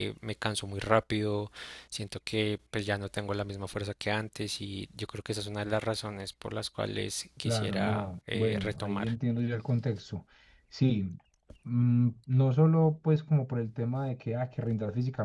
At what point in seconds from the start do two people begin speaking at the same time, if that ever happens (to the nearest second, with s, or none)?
7 s